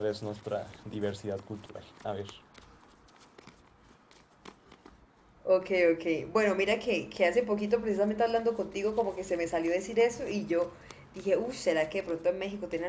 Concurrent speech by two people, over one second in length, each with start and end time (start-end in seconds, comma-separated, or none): none